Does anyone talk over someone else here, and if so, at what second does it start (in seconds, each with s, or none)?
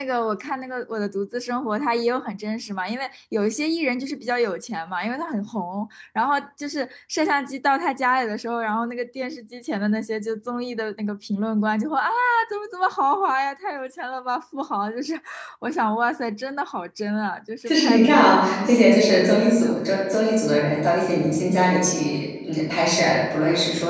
17.7 s